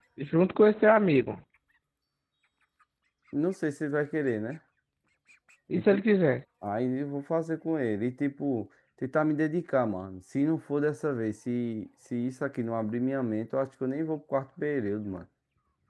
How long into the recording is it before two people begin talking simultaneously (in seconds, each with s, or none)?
none